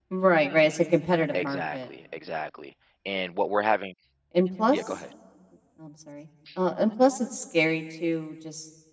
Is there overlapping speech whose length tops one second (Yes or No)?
No